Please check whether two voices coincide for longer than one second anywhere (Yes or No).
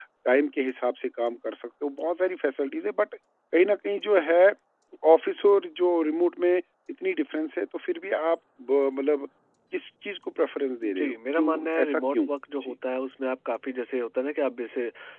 Yes